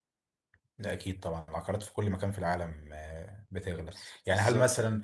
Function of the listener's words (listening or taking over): listening